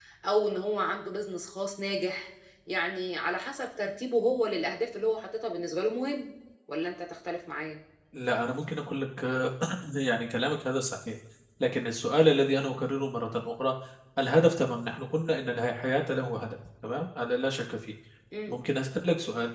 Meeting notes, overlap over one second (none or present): none